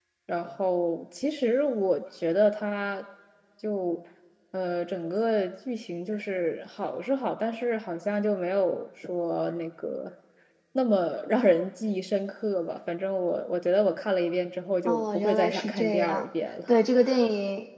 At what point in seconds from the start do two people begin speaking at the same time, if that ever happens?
14.9 s

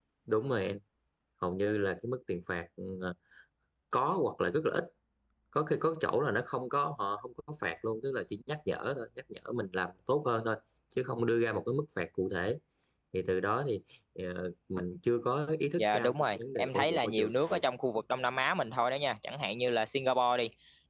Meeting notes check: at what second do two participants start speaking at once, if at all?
15.8 s

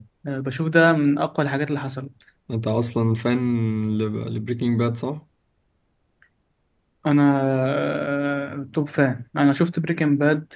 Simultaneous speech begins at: none

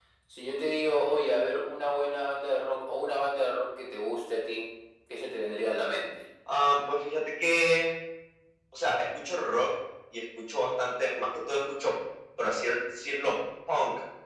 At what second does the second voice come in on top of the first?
none

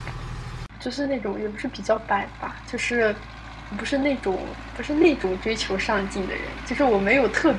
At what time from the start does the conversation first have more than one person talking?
none

